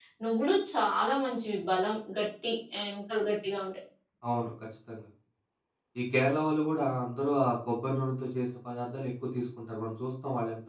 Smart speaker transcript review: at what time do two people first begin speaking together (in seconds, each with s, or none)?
none